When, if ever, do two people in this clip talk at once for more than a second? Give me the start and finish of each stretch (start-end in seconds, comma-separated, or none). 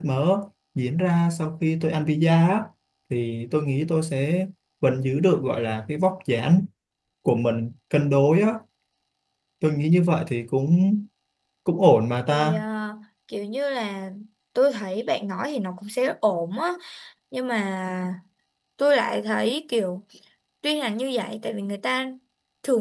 none